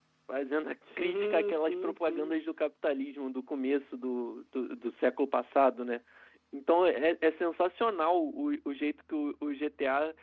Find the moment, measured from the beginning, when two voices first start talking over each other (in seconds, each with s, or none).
1.0 s